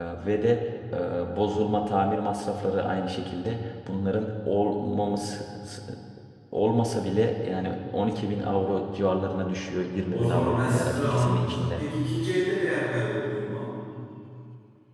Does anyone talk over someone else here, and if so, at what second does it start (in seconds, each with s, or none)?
10.1 s